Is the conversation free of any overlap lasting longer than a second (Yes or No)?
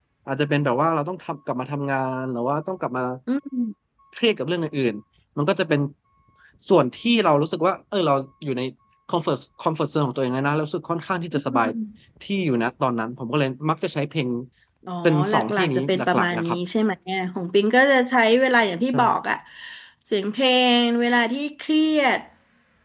No